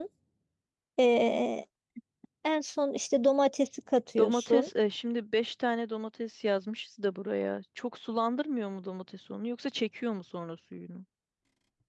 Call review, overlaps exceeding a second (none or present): none